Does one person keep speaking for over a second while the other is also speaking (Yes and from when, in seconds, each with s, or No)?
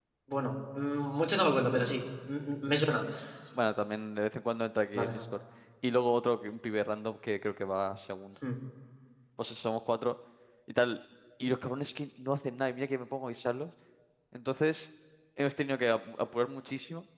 No